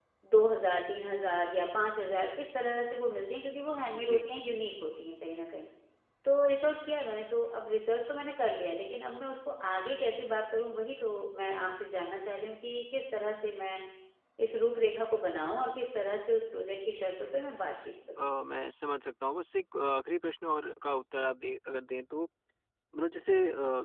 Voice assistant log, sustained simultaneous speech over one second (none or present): none